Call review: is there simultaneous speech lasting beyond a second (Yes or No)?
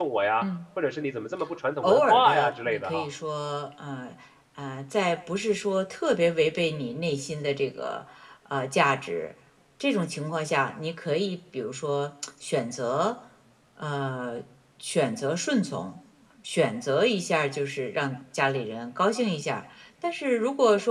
Yes